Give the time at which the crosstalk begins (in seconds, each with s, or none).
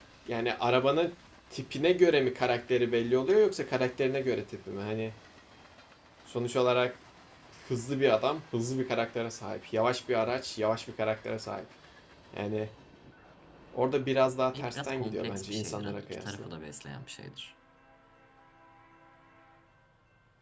14.5 s